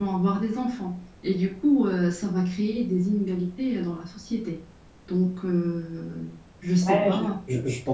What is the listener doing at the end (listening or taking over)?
taking over